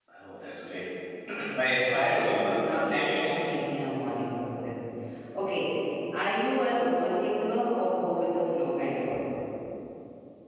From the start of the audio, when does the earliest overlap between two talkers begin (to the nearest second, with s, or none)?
2 s